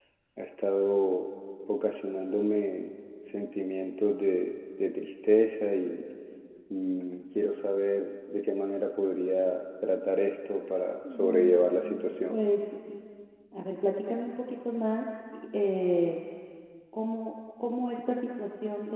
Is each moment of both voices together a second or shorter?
No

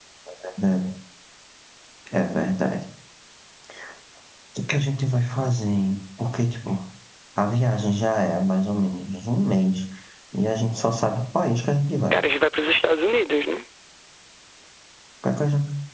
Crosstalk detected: No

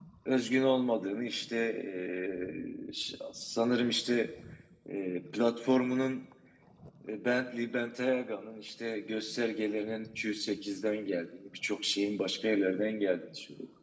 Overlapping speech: No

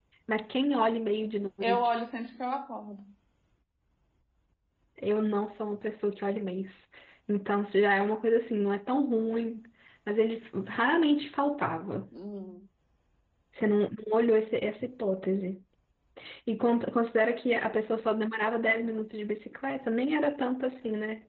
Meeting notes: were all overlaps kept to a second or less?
Yes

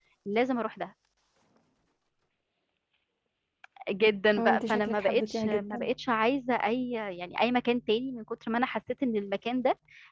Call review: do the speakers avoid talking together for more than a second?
No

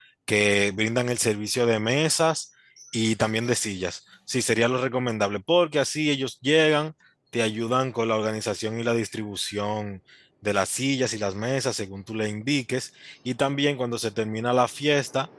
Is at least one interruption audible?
No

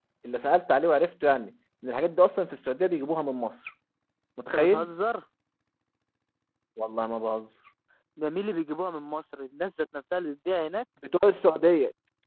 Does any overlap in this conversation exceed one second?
No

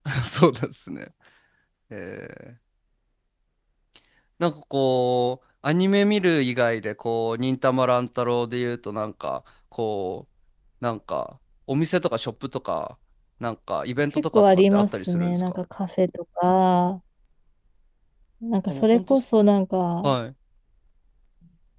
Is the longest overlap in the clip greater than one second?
Yes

